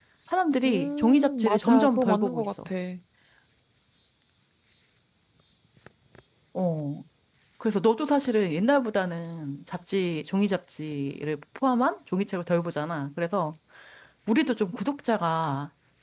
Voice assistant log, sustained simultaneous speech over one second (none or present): present